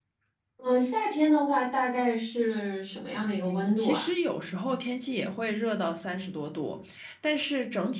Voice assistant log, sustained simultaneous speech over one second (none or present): none